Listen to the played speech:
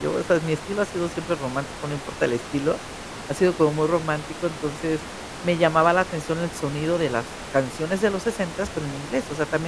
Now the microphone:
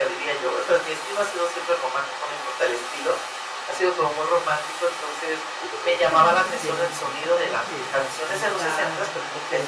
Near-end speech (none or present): present